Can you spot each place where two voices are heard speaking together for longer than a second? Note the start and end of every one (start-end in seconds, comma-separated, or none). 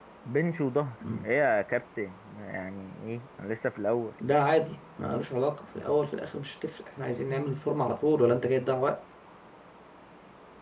none